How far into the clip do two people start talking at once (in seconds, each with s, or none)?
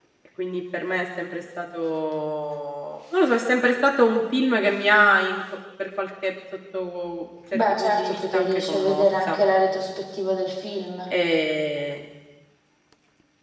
7.5 s